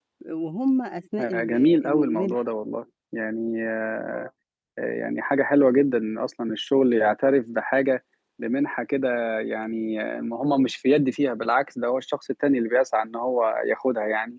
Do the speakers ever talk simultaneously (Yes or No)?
Yes